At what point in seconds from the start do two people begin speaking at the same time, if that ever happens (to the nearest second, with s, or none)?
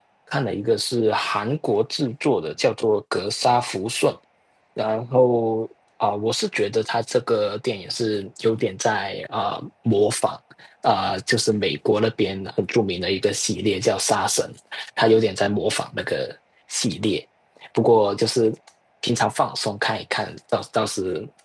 none